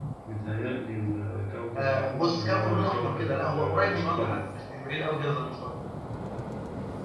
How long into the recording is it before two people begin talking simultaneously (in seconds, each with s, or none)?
1.8 s